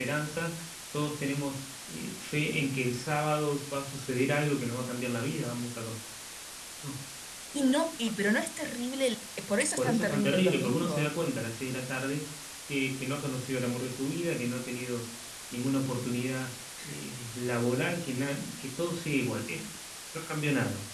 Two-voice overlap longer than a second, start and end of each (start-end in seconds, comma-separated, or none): 9.8-11.1